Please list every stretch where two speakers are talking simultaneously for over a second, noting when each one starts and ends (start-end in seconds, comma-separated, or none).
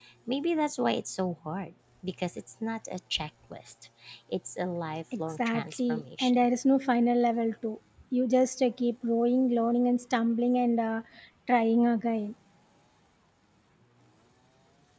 5.2-6.4